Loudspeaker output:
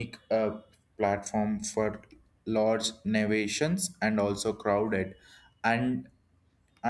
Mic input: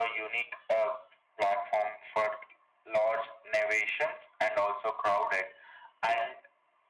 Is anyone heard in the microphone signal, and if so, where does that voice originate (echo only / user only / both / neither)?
echo only